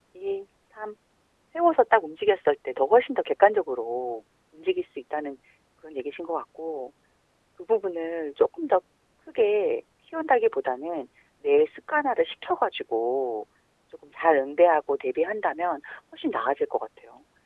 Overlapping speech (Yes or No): No